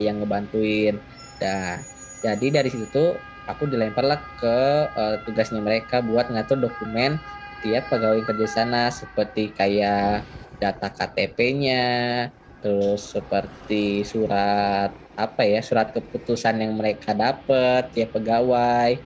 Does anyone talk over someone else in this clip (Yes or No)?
No